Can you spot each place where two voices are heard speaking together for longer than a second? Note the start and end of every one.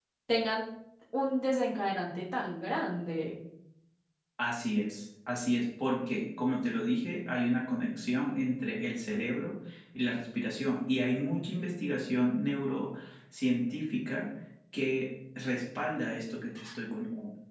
none

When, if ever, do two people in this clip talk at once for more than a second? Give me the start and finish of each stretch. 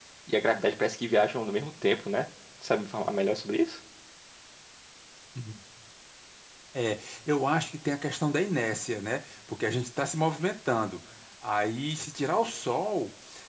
none

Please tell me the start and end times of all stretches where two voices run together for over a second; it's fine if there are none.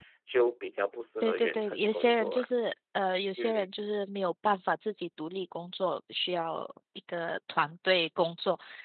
1.2-2.5

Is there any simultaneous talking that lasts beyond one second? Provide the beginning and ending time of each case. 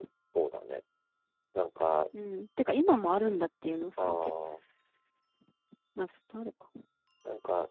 none

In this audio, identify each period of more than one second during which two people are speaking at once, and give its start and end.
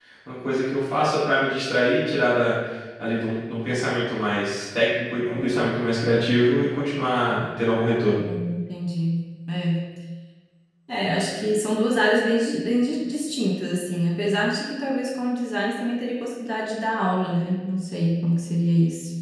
none

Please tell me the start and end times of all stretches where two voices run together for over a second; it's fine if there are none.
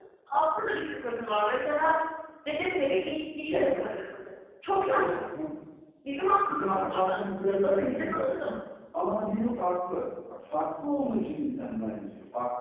6.5-8.5

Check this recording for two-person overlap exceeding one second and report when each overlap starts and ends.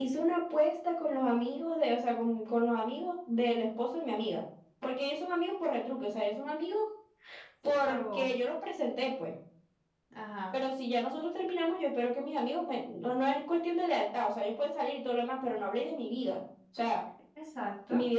none

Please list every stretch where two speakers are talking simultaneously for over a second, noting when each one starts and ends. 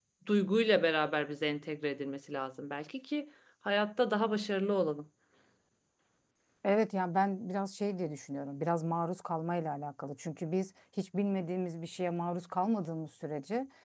none

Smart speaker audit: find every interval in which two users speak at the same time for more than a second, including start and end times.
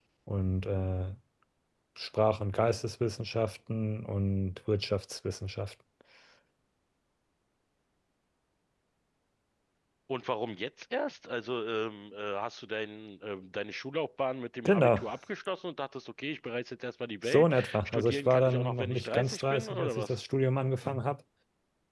17.2-20.1

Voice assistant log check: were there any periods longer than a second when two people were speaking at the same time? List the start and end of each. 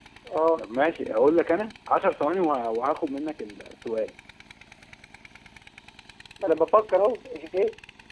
none

